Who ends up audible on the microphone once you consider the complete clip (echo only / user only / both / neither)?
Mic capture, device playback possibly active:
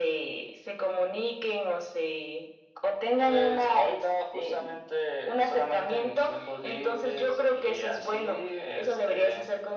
echo only